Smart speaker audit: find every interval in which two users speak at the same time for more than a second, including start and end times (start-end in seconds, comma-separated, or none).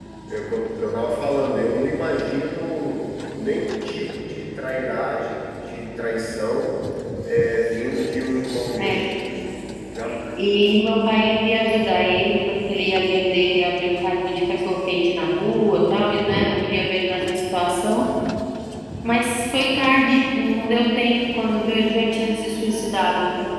none